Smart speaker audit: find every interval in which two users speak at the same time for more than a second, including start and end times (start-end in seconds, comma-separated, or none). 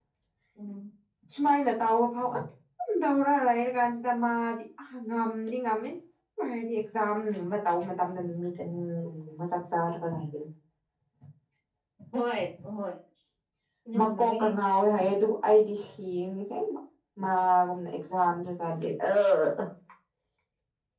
none